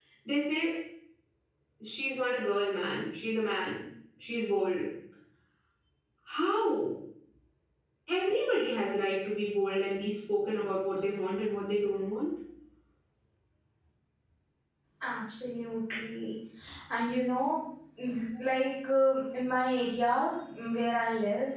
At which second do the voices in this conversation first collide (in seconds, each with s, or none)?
none